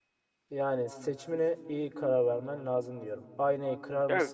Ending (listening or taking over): listening